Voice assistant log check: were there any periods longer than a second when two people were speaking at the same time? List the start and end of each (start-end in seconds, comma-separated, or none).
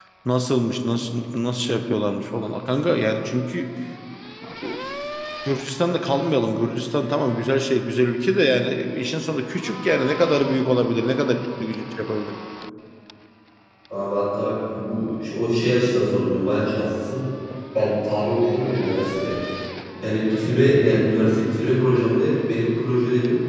none